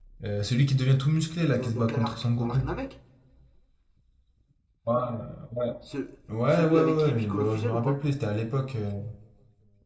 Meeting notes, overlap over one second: present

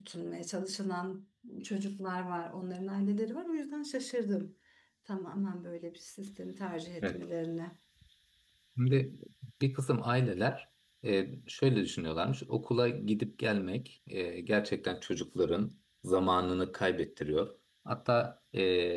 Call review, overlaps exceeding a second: none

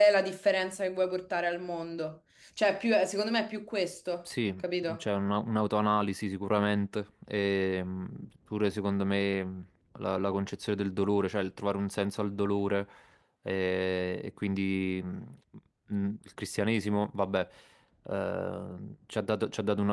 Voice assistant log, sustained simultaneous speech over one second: none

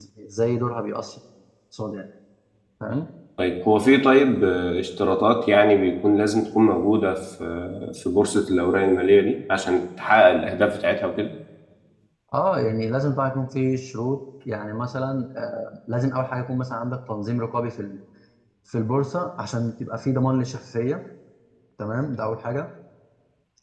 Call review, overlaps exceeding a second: none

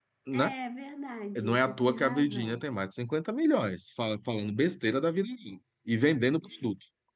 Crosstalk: present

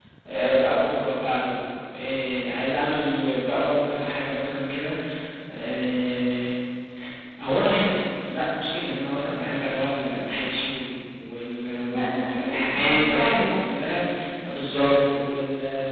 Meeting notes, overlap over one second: present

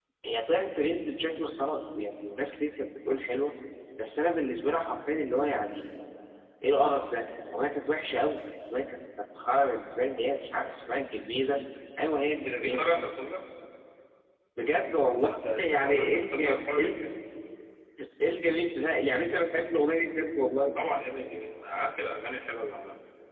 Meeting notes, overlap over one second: present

